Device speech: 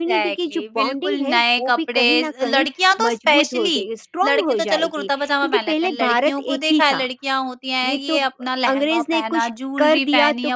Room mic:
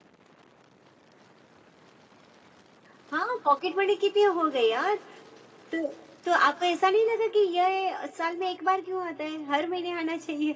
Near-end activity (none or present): present